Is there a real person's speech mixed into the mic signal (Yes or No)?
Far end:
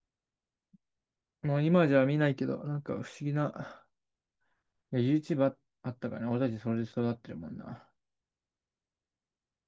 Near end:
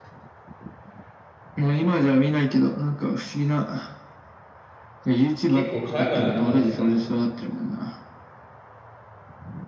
Yes